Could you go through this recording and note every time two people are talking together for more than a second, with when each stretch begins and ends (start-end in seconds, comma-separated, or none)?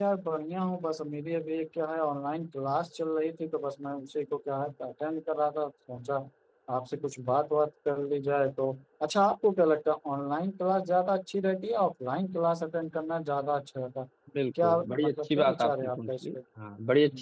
14.6-16.2